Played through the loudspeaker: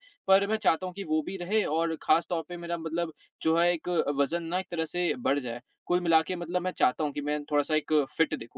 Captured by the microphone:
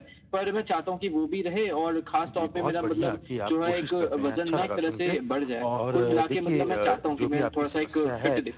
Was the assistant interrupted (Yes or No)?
Yes